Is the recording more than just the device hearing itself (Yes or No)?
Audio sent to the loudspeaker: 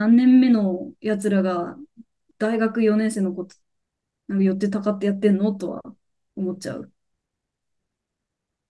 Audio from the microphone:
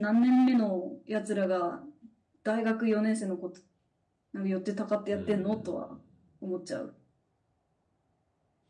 Yes